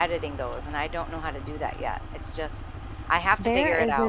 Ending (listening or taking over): taking over